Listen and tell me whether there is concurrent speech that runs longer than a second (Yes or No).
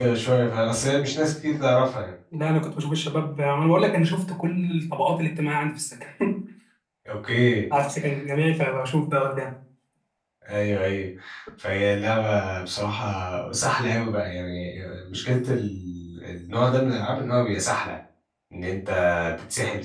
No